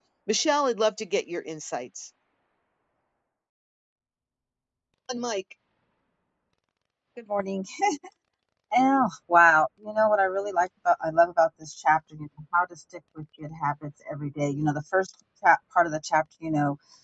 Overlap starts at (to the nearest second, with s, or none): none